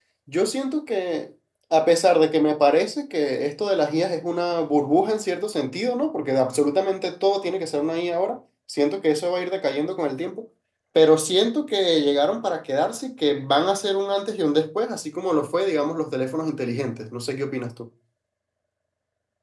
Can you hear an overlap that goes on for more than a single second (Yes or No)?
No